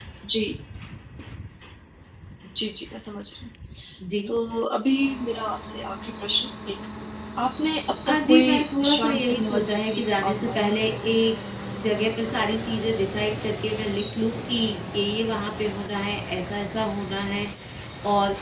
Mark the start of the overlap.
8 s

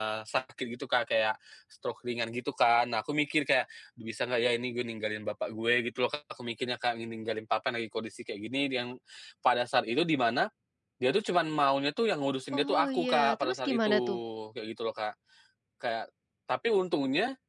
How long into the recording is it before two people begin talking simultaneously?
13 s

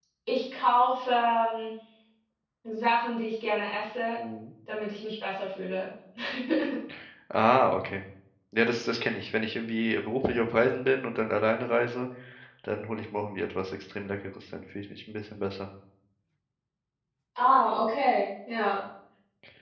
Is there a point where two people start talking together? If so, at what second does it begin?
none

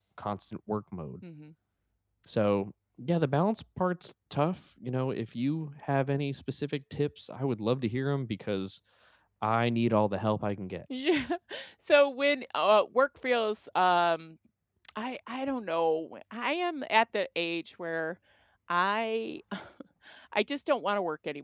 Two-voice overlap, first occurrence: none

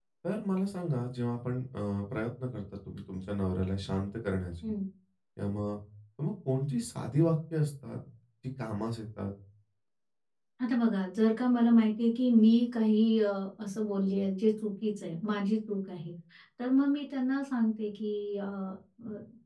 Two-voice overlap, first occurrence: none

